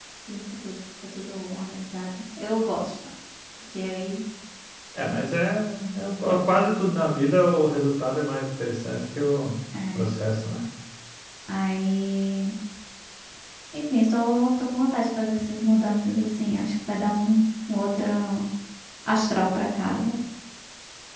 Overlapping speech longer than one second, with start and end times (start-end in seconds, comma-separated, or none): none